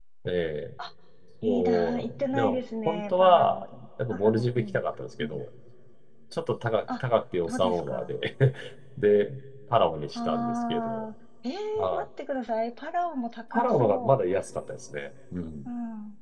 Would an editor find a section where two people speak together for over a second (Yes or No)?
Yes